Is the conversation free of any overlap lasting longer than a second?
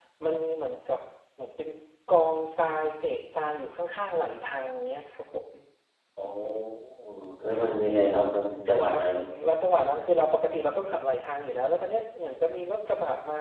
Yes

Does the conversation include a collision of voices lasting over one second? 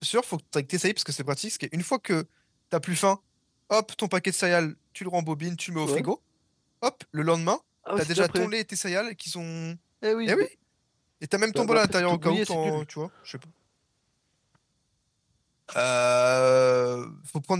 Yes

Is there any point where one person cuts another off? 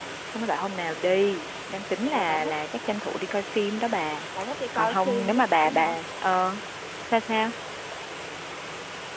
Yes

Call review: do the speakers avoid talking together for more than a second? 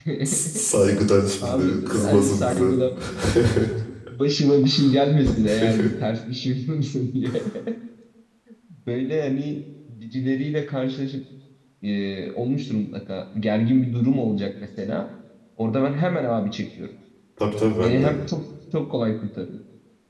No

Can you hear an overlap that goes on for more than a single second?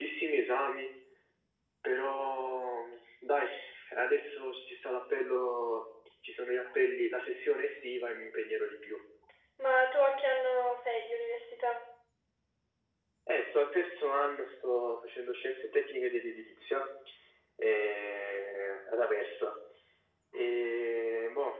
No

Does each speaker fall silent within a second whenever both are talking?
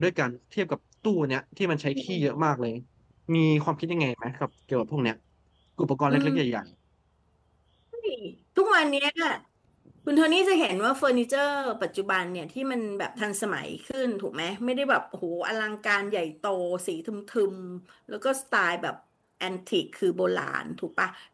Yes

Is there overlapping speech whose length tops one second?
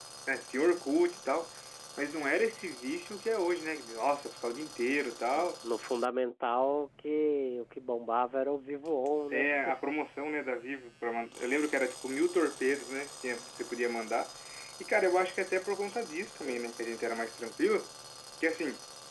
No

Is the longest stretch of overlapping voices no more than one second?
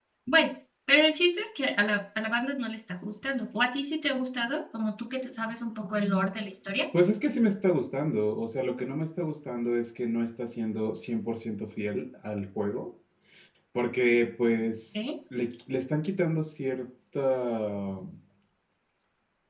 Yes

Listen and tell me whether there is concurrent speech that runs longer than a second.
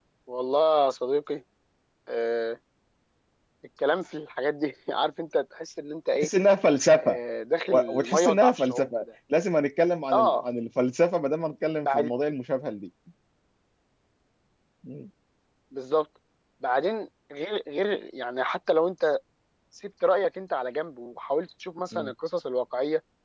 Yes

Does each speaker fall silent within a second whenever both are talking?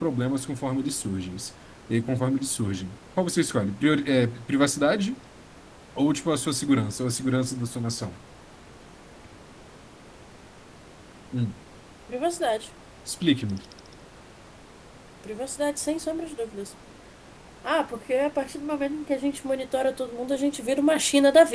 Yes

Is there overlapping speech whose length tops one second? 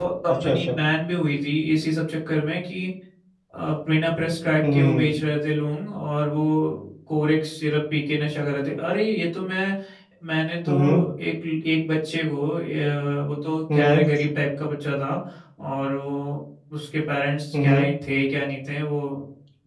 No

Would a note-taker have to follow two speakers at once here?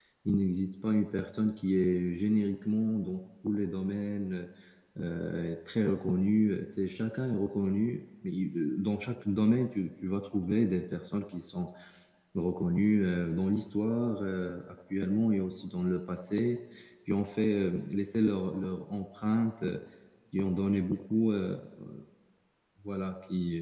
No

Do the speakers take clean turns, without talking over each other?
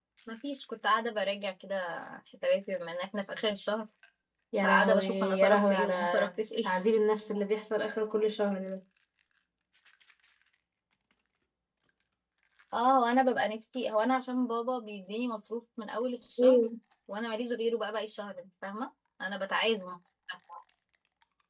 No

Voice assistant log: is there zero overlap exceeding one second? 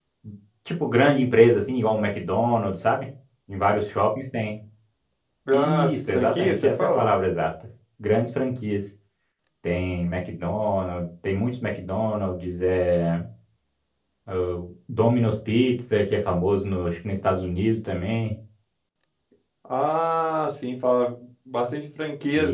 No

